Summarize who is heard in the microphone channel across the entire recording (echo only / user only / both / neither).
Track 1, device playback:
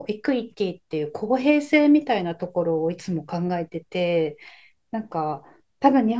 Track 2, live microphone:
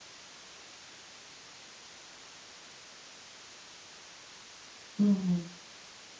user only